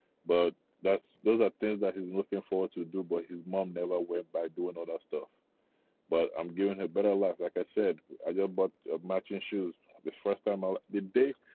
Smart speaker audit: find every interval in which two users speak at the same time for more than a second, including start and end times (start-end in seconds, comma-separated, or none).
none